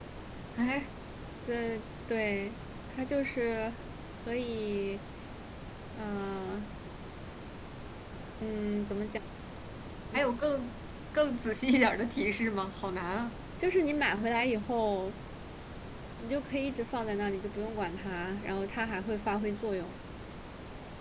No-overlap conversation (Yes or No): Yes